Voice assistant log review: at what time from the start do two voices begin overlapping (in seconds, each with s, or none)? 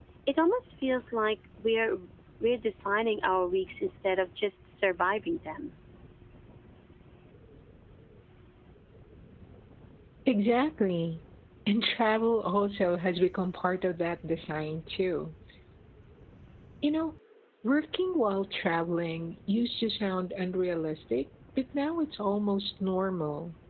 none